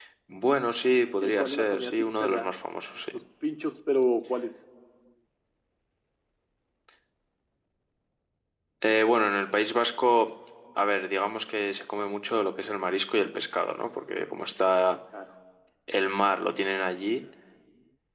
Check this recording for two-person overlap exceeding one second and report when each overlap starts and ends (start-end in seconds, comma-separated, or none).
1.2-2.5